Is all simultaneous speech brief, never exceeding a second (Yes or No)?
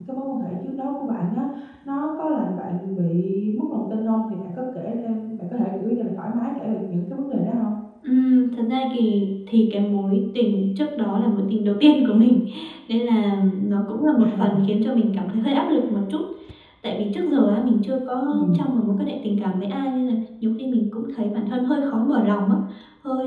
Yes